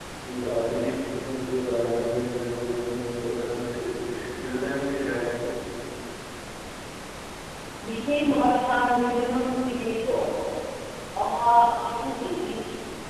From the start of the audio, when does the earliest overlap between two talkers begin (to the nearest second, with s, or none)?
none